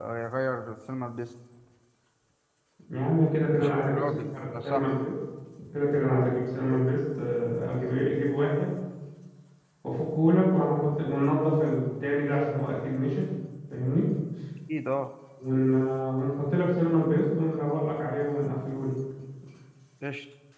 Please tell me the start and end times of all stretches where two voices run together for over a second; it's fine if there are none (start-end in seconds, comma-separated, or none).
3.6-4.9